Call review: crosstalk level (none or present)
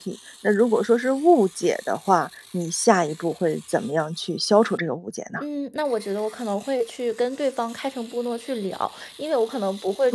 none